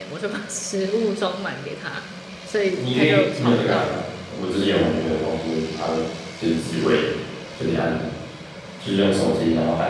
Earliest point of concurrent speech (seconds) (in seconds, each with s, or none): 2.6 s